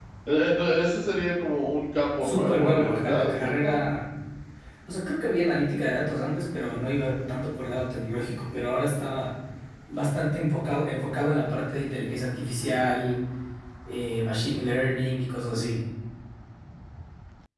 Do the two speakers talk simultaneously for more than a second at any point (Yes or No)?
Yes